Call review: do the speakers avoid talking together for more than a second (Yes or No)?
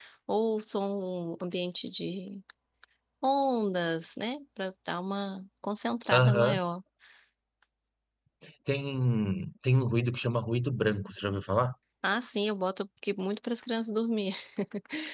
Yes